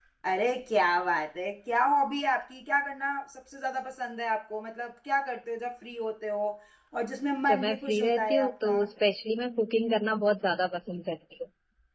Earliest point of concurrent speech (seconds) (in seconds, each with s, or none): 7.5 s